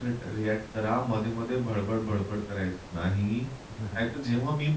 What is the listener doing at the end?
listening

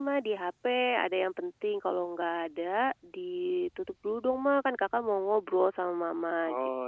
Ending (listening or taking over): listening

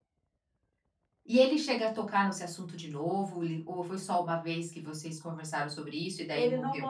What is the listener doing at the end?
taking over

